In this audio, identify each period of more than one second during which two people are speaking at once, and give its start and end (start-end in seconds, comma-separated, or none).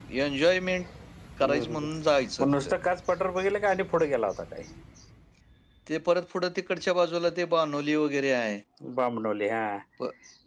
none